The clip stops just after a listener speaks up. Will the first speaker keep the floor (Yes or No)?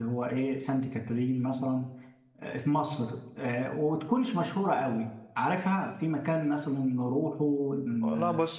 No